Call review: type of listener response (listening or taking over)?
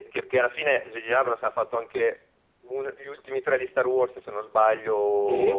taking over